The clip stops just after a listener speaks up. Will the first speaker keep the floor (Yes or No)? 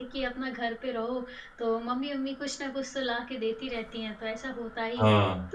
Yes